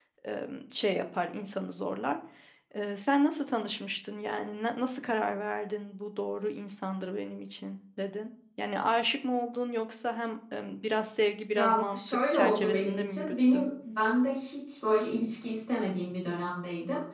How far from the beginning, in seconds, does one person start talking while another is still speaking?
11.5 s

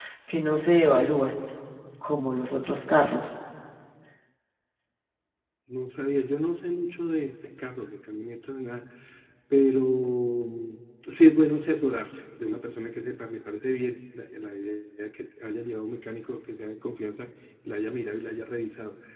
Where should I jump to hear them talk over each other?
none

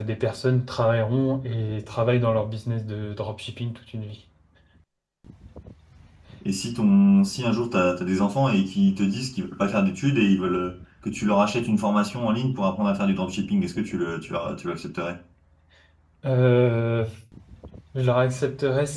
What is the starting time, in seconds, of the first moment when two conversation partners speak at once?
none

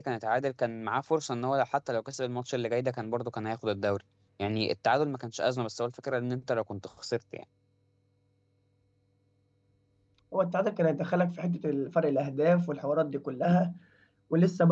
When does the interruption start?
none

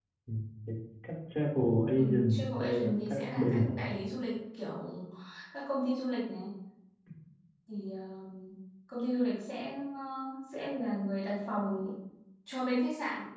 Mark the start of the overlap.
2.0 s

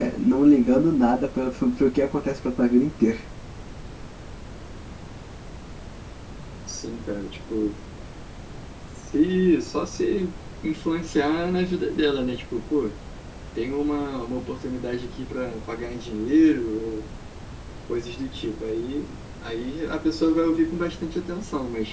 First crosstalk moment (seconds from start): none

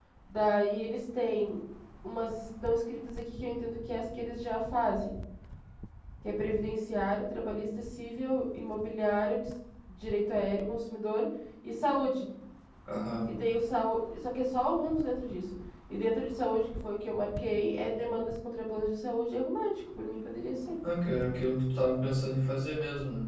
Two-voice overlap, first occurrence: none

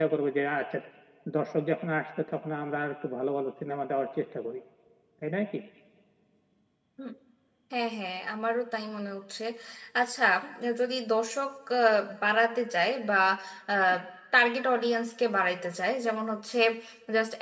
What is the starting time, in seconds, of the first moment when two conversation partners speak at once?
none

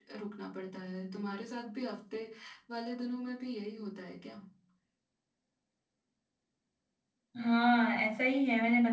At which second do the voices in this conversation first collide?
none

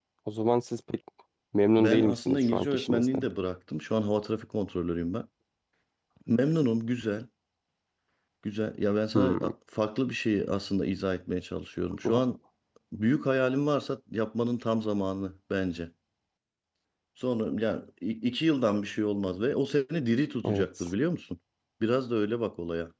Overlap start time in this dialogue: 1.8 s

